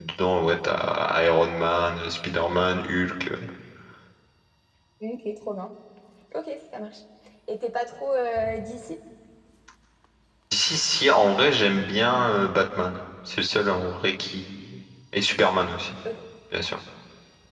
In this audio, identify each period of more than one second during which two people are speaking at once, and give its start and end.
none

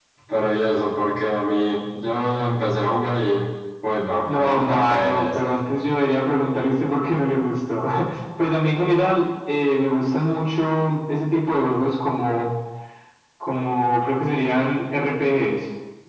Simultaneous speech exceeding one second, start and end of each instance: 4.2-5.5

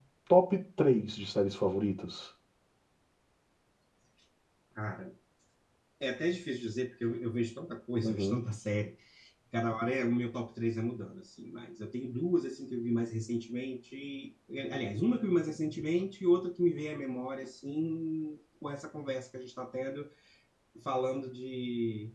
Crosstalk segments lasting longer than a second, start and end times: none

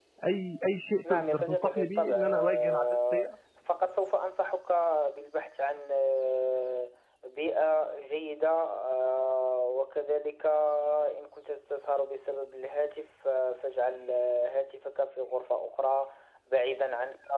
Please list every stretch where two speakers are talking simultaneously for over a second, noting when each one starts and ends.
1.1-3.3

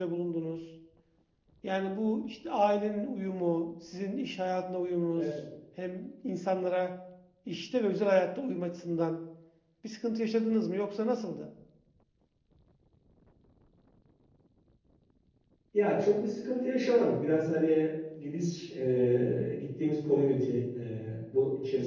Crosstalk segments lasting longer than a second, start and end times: none

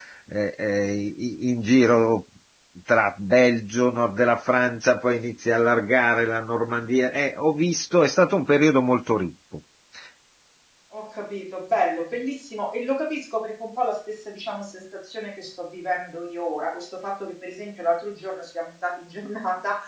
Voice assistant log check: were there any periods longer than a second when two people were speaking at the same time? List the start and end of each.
none

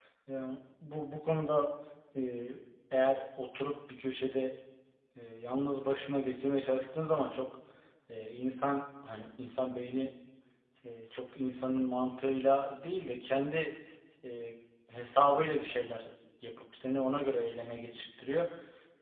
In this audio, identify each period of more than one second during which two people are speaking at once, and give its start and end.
none

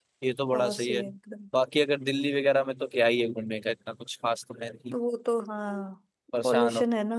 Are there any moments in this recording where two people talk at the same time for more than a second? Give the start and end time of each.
none

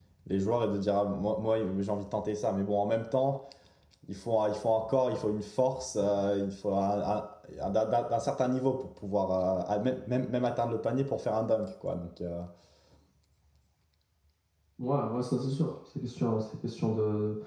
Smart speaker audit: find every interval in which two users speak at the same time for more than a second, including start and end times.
none

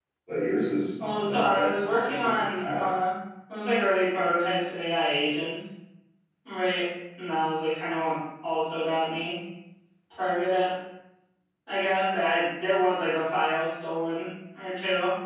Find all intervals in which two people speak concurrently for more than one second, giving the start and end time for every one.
1.0-2.9

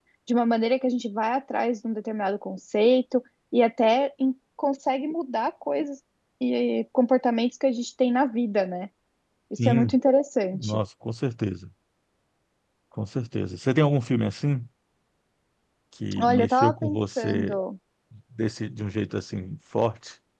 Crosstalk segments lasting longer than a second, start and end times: 16.2-17.6

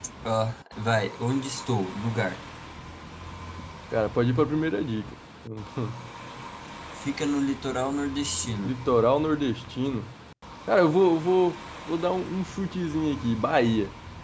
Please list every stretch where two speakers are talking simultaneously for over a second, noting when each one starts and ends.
none

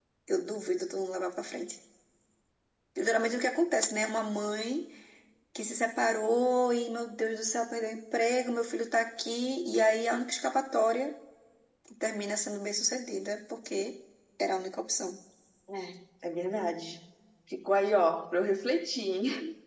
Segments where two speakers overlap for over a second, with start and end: none

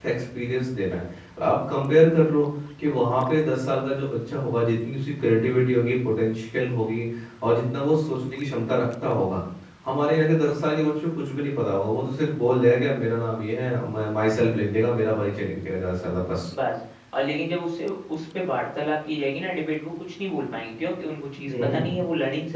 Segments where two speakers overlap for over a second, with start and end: none

